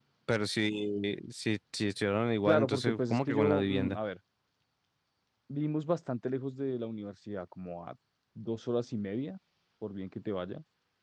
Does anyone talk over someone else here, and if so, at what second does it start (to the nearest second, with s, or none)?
2 s